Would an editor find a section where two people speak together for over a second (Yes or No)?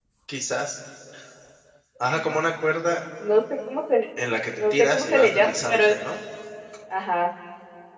Yes